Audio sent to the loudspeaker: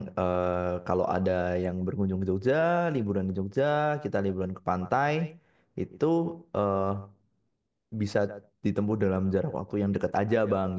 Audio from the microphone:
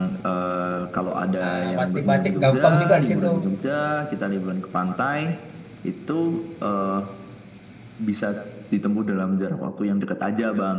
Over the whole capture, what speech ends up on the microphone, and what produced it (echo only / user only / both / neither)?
both